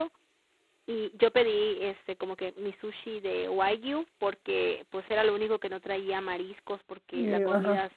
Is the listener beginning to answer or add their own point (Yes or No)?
No